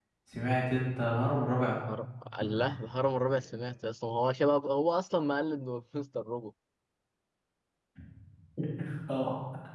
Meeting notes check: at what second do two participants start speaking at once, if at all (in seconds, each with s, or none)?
none